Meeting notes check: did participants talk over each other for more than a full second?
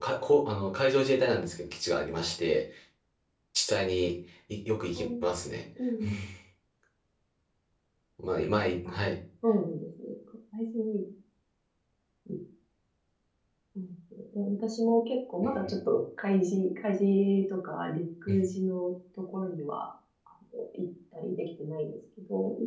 No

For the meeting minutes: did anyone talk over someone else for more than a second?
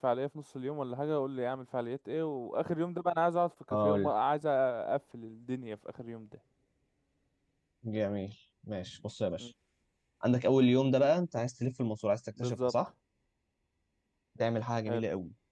No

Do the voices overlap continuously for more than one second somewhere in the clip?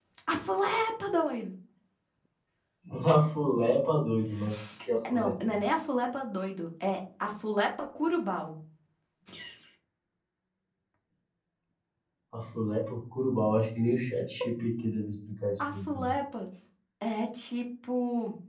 No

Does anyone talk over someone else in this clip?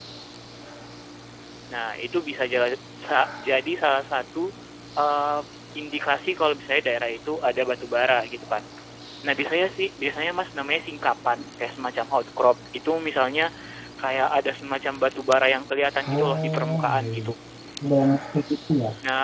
Yes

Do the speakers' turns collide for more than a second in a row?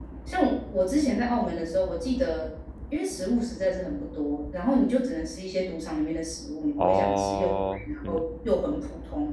Yes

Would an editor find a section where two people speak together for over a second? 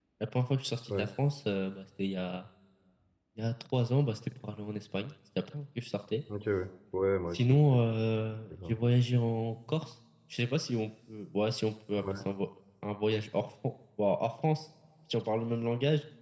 No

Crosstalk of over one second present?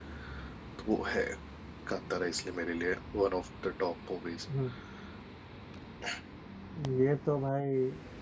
No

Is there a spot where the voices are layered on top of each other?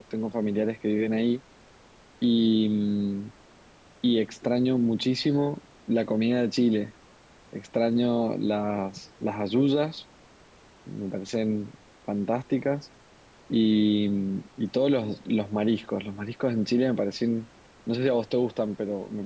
No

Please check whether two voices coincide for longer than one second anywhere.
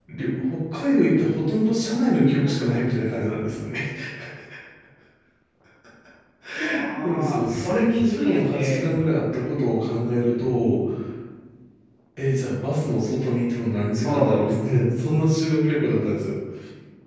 Yes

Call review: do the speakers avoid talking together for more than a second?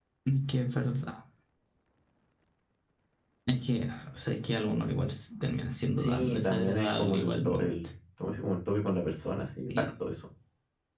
No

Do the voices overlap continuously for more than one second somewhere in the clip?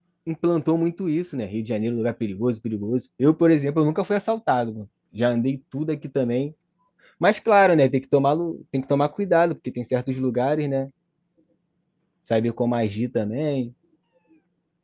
No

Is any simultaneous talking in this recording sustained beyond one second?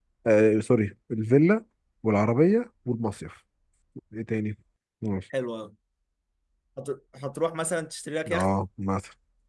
No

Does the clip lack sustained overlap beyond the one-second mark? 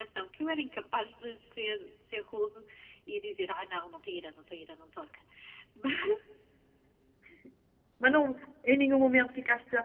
Yes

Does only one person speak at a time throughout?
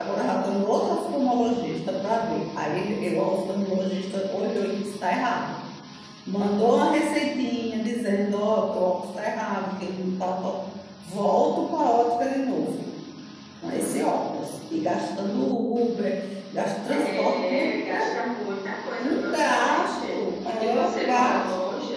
No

